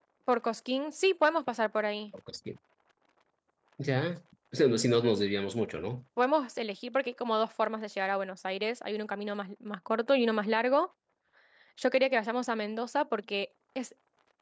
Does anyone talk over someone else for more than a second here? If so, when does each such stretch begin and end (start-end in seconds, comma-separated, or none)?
none